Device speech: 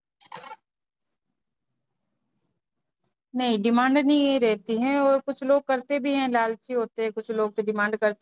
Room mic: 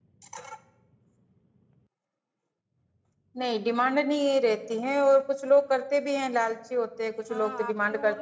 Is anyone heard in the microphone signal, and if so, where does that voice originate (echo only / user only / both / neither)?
both